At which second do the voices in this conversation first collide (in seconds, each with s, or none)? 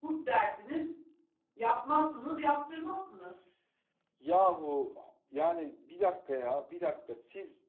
none